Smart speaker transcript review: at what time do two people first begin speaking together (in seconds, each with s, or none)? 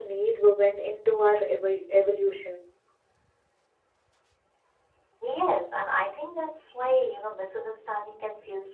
none